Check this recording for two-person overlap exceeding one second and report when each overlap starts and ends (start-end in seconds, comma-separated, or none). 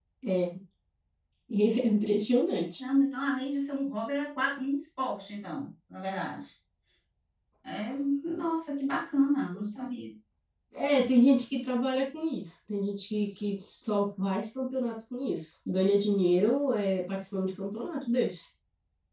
none